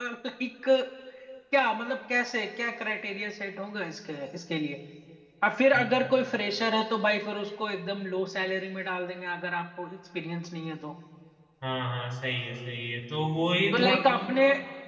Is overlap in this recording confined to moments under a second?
Yes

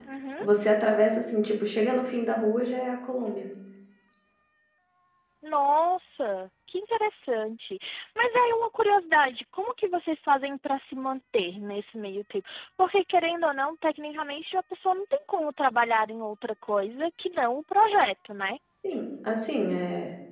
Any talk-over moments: No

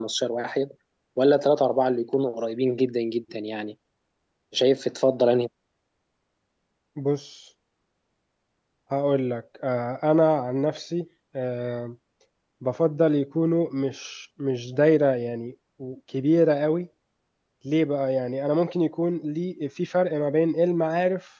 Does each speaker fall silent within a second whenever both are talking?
Yes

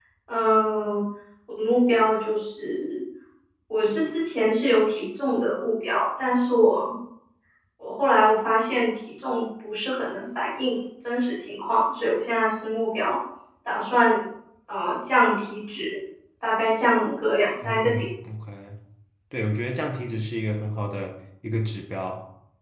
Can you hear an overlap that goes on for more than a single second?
No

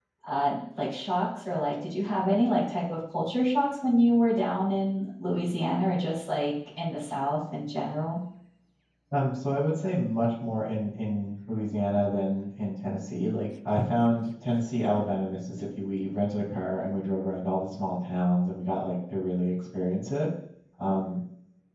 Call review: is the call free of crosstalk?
Yes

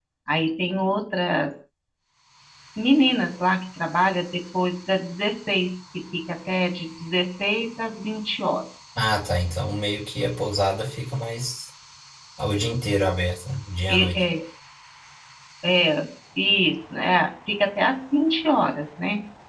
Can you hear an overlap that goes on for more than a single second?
No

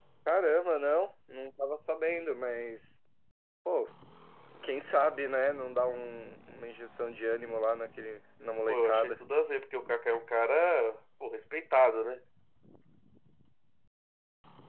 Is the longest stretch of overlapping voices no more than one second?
Yes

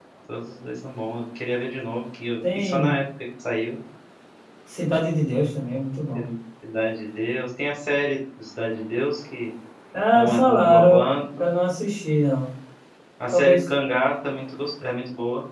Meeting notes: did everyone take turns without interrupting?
No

